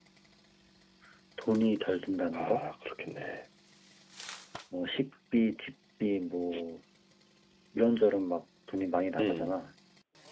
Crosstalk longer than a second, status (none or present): none